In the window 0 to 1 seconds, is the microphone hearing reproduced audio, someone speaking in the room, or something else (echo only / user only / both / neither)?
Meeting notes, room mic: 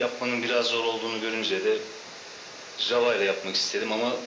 echo only